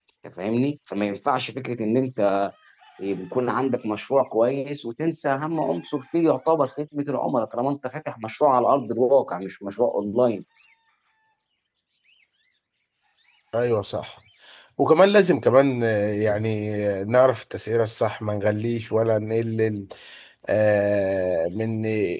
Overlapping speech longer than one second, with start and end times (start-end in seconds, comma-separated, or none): none